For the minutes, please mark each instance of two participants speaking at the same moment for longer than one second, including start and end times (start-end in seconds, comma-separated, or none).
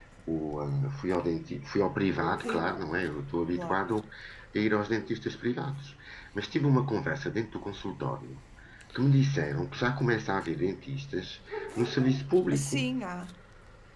none